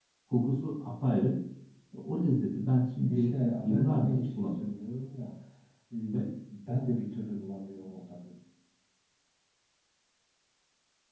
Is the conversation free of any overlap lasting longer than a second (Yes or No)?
No